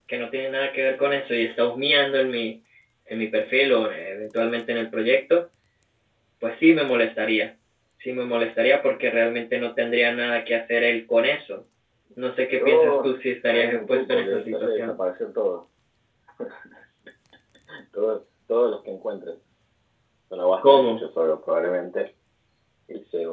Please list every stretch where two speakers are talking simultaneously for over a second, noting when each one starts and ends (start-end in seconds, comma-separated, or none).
13.5-15.0